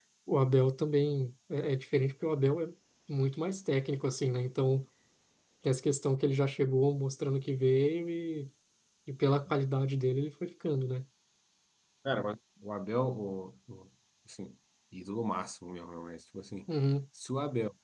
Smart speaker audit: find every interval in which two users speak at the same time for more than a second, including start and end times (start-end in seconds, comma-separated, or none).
none